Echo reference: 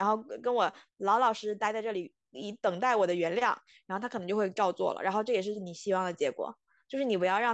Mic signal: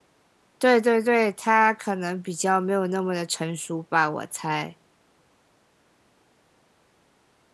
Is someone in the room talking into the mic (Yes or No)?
Yes